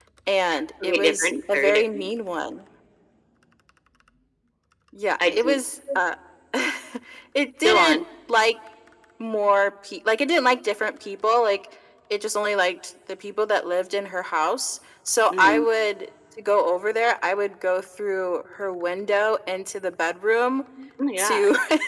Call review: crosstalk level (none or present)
present